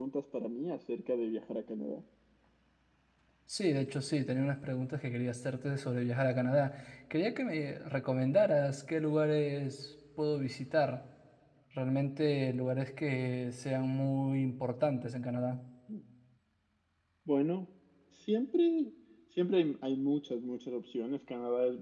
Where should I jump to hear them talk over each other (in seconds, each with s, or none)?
none